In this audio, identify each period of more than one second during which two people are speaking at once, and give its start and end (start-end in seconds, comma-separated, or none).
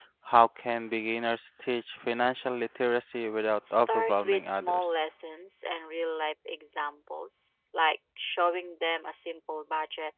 3.7-5.0